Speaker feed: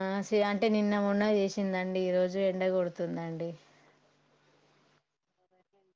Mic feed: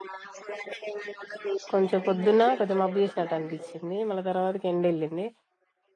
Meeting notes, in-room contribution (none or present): present